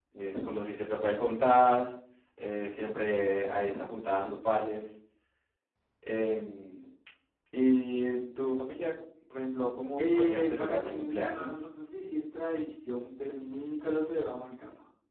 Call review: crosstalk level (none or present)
present